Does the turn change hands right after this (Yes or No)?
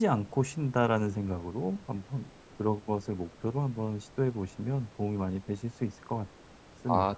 Yes